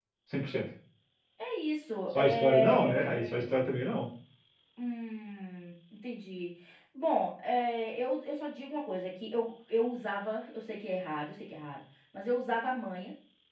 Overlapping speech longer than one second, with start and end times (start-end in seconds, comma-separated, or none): 2.1-3.4